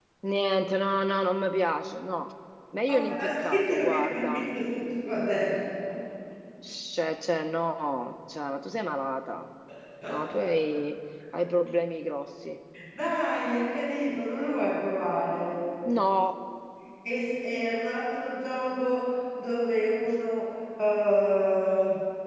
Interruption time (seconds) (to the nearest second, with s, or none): 3 s